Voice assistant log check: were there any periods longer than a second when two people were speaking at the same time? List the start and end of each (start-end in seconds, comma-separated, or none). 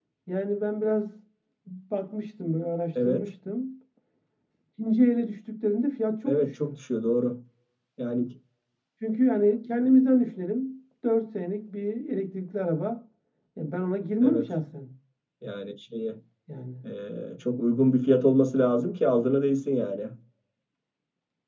none